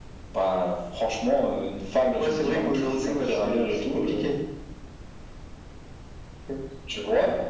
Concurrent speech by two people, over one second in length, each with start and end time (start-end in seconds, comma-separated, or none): 2.2-4.3